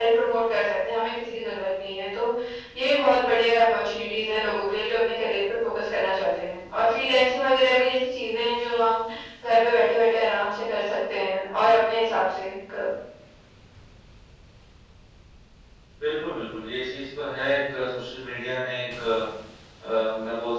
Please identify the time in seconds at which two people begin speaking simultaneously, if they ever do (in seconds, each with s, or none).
none